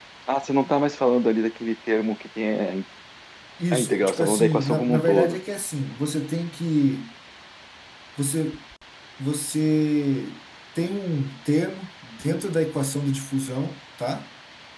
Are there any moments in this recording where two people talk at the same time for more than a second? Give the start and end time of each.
3.7-5.4

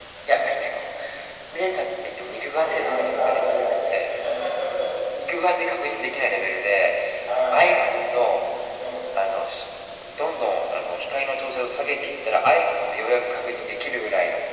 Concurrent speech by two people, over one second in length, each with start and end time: 2.6-4.1

